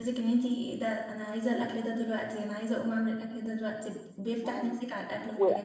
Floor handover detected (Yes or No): Yes